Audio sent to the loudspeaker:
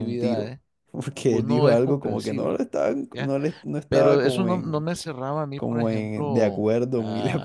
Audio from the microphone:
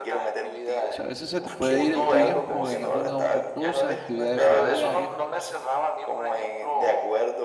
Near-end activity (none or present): present